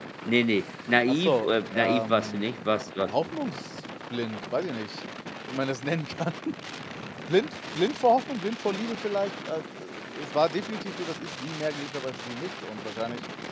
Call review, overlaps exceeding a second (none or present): present